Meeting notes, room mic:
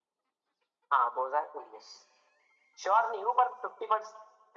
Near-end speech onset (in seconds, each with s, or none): none